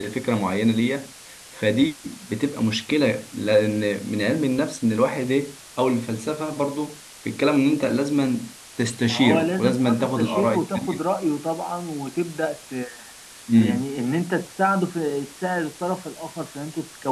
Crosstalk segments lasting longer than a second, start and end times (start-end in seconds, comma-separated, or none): 9.1-11.0